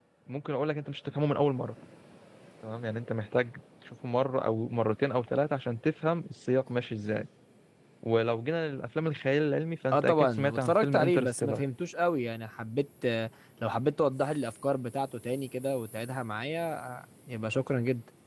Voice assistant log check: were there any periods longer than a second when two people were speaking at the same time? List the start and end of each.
9.9-11.6

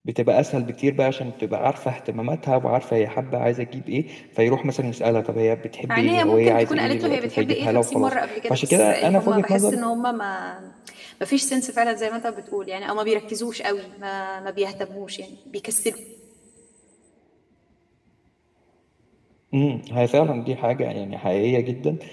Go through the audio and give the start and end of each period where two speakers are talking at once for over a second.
5.9-9.8

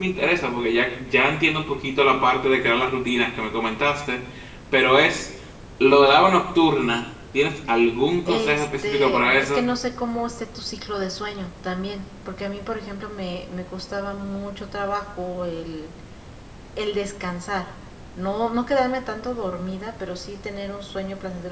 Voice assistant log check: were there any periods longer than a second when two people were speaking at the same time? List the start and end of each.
8.3-9.6

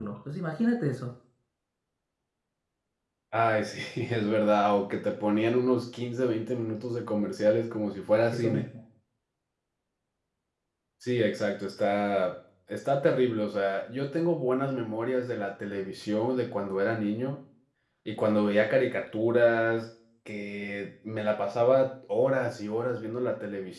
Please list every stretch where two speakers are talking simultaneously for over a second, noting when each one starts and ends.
none

